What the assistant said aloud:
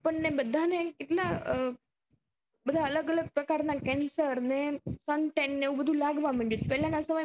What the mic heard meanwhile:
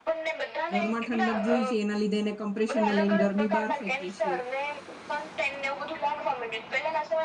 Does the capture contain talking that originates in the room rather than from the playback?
Yes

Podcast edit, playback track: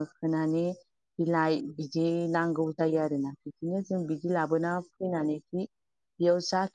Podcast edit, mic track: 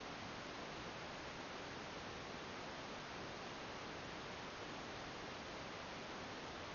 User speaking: No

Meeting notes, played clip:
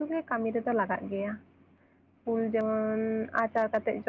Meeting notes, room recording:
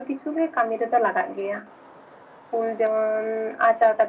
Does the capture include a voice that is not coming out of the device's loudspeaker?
No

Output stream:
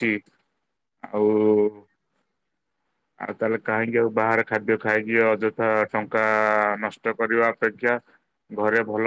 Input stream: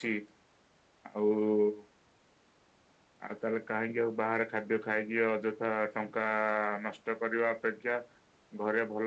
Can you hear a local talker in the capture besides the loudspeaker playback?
No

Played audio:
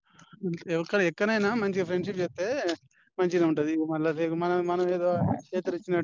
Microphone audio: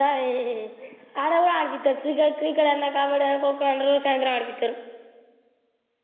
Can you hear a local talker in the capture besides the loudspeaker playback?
Yes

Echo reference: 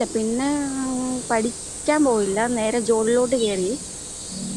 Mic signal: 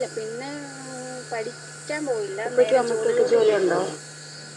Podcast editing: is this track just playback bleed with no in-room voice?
No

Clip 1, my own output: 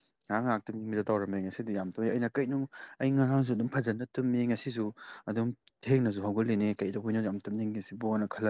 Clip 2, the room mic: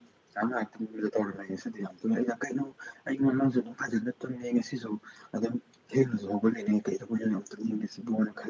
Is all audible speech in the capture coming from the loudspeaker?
Yes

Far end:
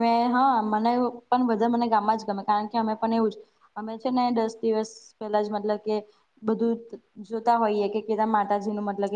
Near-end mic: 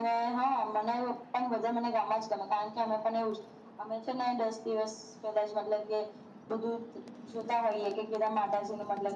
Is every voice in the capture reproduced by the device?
Yes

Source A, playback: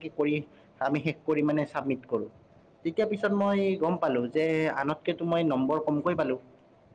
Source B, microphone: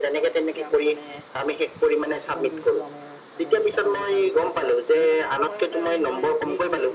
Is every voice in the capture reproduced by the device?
No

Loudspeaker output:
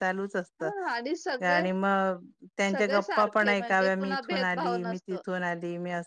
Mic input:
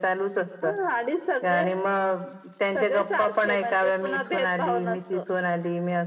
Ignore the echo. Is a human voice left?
No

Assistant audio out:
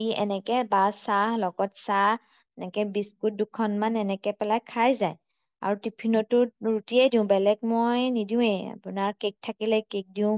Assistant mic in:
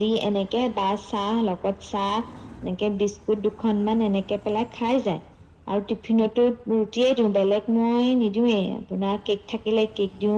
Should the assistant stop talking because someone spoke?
No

